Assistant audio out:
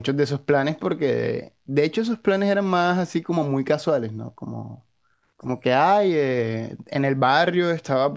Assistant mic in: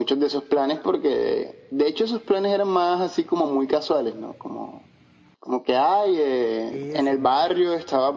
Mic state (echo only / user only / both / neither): both